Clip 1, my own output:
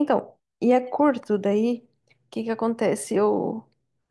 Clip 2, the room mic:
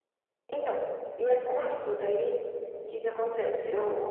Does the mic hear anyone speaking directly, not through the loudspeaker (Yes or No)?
No